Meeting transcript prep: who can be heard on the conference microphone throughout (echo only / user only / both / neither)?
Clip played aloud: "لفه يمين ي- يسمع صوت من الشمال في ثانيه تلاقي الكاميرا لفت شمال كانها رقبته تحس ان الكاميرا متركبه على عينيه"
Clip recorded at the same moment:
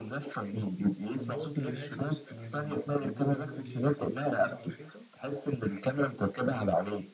both